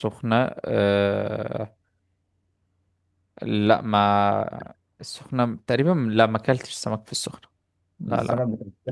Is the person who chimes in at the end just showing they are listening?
No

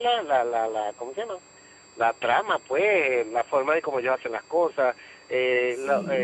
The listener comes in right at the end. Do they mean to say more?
No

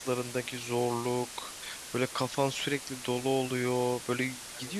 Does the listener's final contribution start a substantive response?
No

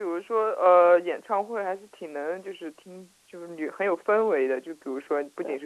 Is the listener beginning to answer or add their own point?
No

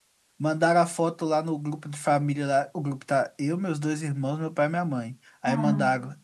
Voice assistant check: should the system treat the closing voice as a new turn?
No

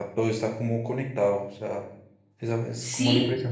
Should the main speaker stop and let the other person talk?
Yes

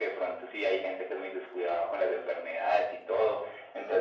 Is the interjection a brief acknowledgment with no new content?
Yes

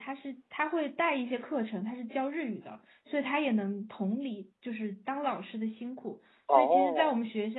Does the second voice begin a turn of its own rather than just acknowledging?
No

